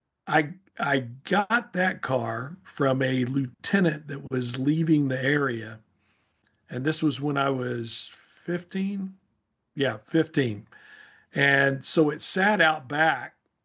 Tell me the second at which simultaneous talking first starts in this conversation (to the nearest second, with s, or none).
none